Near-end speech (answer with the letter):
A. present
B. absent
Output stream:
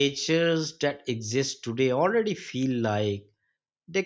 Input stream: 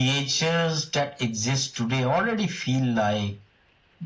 B